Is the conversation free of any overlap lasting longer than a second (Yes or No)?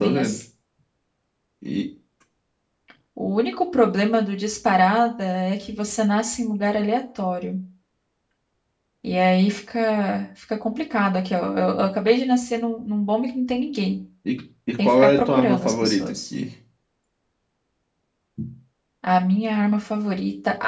No